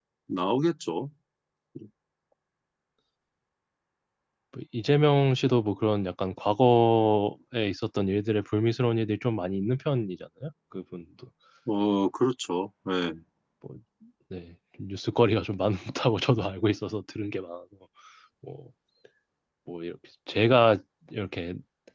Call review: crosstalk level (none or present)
none